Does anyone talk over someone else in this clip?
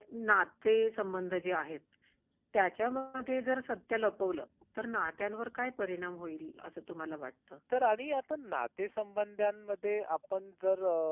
No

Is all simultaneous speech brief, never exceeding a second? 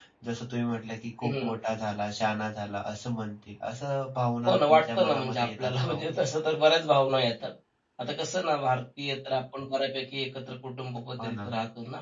No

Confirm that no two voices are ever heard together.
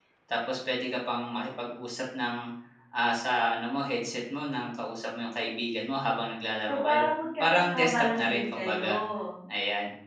No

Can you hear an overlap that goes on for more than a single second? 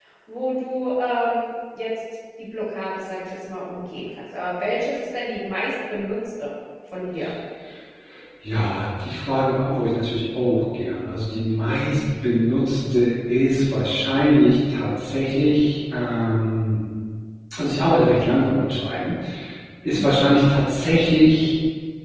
No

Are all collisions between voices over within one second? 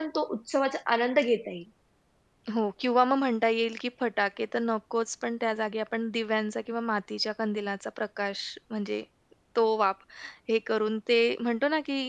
Yes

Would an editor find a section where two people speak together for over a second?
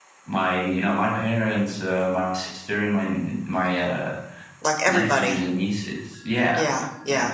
No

